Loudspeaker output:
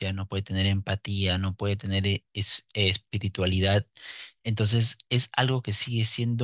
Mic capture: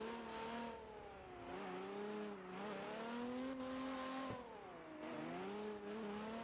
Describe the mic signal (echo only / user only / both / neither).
neither